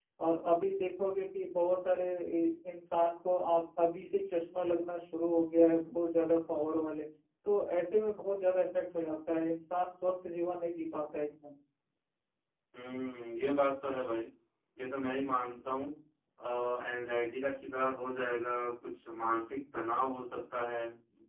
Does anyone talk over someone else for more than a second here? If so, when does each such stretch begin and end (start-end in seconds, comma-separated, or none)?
none